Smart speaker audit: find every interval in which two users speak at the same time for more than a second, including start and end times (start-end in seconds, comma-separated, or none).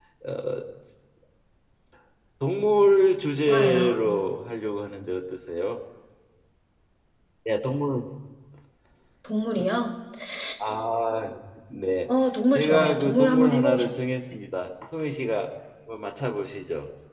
12.5-13.9